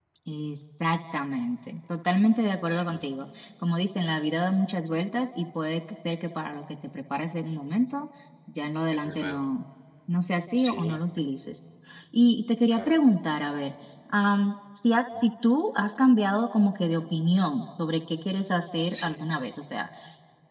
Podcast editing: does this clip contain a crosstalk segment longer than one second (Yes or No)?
No